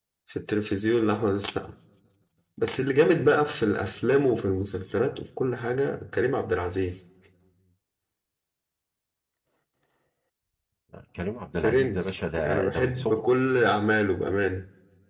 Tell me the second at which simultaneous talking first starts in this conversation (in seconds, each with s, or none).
11.6 s